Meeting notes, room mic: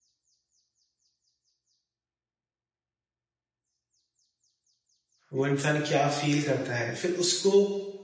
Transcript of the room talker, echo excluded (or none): वो इंसान क्या फ़ील करता है। फिर उसको